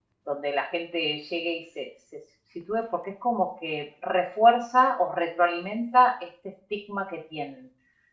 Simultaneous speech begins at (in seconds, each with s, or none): none